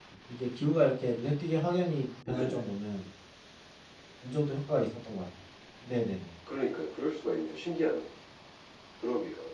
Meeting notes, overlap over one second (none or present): none